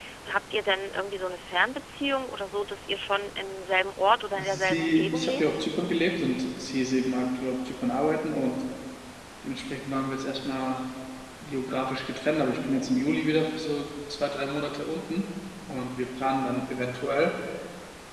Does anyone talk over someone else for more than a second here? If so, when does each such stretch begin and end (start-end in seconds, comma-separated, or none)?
4.4-5.6